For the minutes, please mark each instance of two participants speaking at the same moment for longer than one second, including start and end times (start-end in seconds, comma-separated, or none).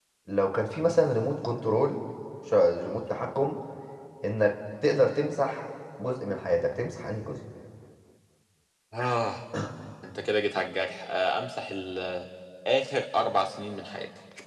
none